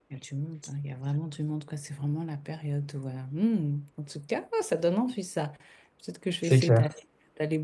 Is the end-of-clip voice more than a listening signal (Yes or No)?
No